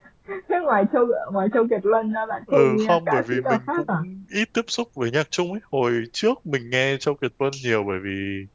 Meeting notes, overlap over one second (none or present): present